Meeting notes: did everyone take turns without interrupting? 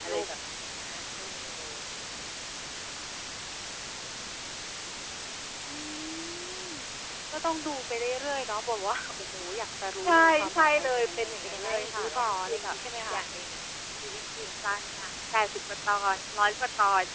No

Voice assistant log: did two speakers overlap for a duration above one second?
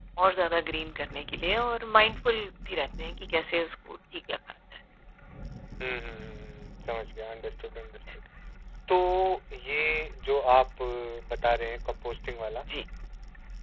No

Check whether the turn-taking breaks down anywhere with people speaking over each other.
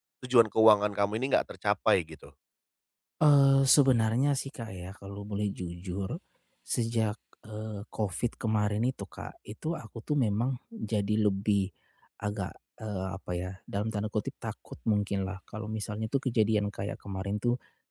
No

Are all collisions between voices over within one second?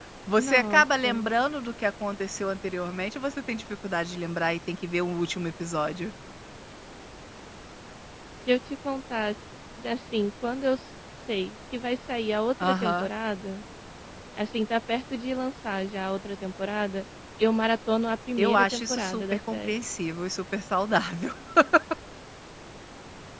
No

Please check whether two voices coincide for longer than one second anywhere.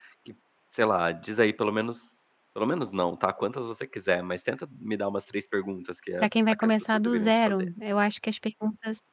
Yes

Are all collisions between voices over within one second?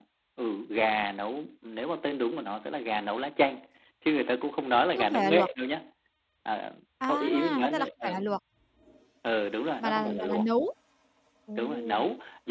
No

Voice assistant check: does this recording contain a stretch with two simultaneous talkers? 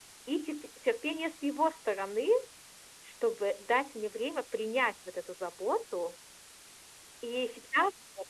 No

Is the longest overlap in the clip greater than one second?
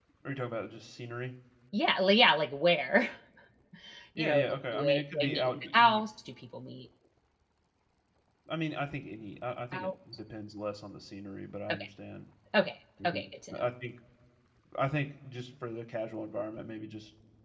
Yes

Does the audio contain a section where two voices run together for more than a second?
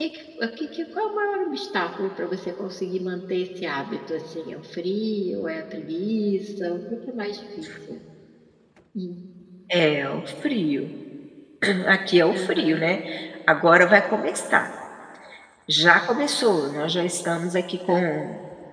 No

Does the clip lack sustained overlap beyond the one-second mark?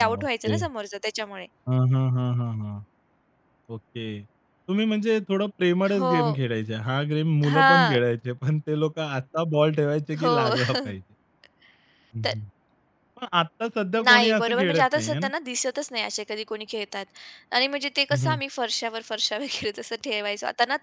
No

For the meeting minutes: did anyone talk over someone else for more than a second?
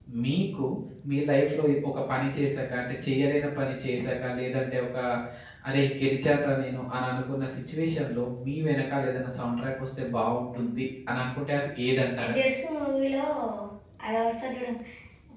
No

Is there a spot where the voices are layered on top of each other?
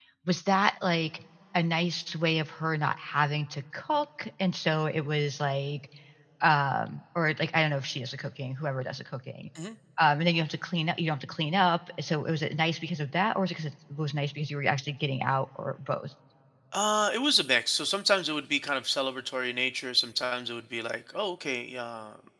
No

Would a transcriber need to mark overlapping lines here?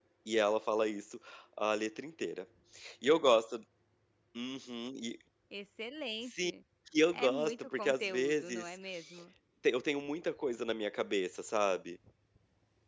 Yes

